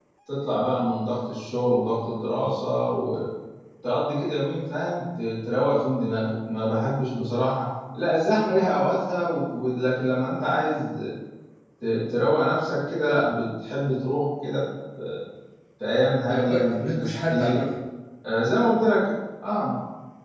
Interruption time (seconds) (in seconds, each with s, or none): 16.3 s